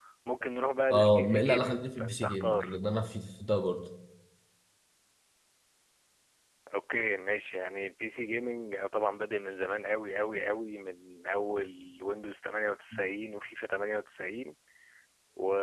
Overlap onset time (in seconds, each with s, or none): 0.9 s